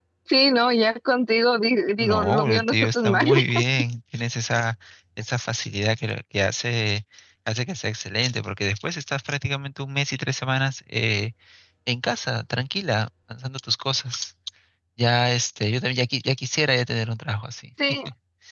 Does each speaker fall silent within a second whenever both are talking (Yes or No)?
No